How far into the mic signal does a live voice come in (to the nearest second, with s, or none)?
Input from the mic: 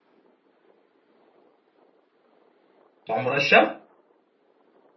3 s